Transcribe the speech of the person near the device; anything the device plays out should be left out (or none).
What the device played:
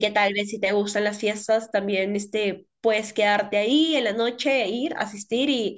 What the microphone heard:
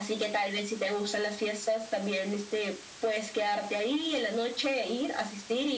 none